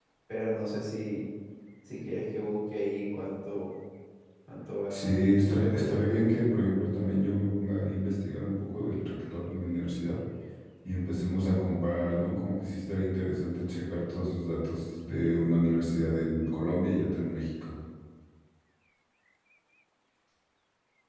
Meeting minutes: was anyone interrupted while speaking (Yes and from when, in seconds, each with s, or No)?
Yes, from 4.9 s